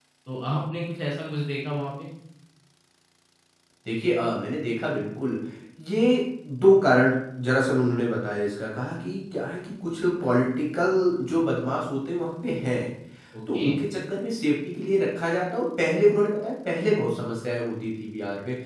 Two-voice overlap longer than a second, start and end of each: none

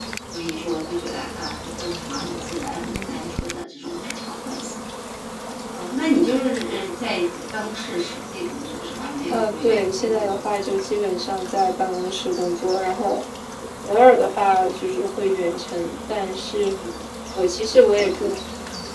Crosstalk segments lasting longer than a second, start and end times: 9.3-10.8

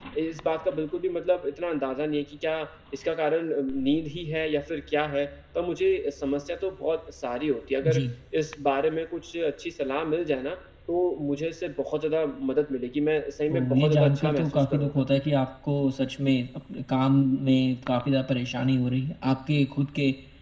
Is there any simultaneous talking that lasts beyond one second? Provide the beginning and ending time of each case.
13.5-15.0

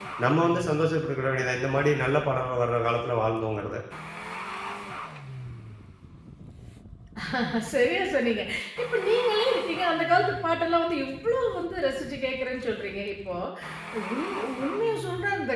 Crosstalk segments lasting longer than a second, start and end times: none

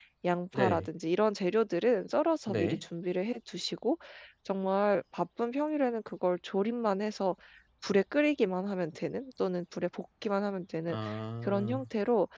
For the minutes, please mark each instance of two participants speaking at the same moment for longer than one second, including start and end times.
none

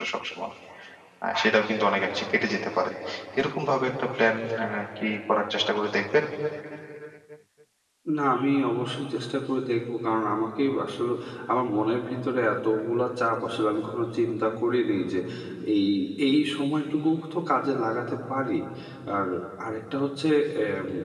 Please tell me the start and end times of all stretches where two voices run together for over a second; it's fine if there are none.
none

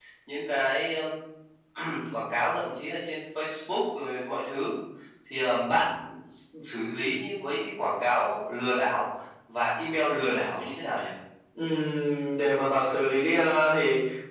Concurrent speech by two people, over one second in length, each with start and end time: none

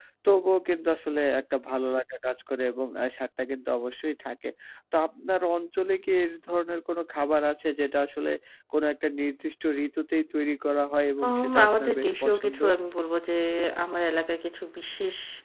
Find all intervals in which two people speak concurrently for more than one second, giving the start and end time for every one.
11.2-12.6

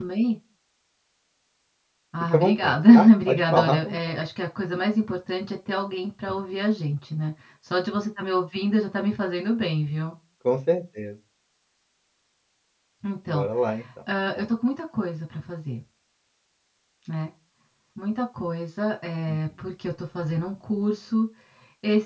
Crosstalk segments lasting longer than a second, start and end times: 2.3-4.0

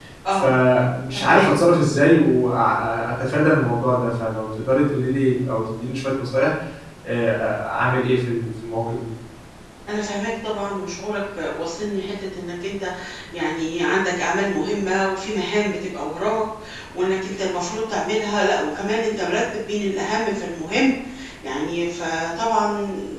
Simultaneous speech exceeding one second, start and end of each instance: none

